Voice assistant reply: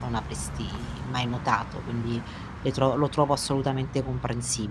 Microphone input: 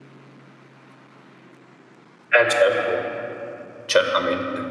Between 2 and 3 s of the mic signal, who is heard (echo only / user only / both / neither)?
user only